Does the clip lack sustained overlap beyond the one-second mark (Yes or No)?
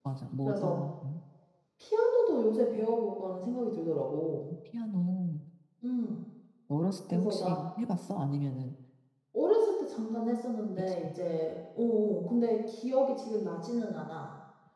Yes